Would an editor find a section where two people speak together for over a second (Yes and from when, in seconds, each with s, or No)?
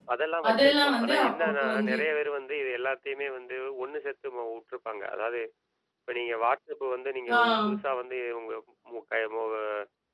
Yes, from 0.5 s